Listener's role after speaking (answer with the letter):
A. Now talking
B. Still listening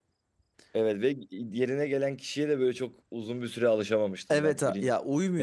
A